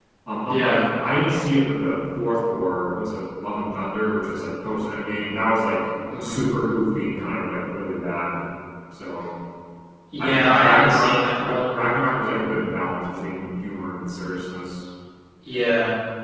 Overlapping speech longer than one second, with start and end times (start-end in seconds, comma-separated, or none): 10.2-11.8